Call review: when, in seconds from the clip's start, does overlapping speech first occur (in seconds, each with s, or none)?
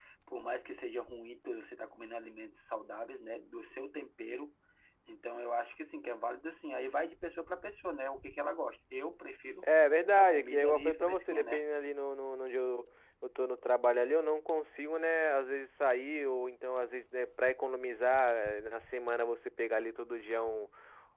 10.1 s